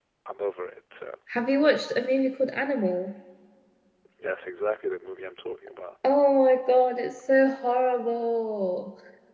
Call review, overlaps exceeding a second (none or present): none